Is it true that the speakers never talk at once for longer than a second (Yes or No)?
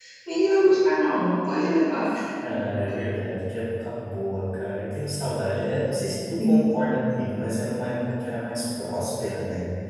Yes